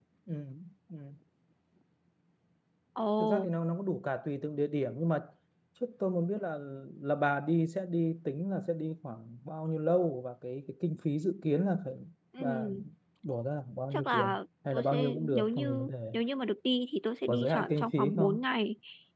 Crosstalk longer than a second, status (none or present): present